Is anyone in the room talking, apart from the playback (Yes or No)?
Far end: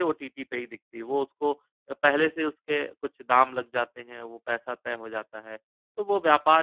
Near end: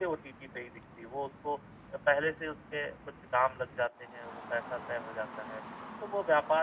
No